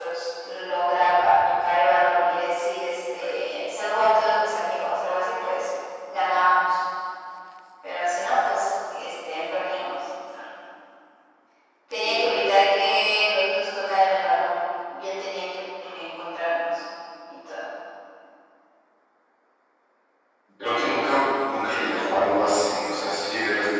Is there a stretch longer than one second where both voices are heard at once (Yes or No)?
No